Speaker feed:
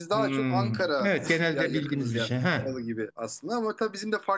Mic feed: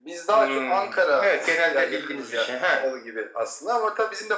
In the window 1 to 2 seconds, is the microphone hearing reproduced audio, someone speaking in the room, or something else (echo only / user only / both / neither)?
echo only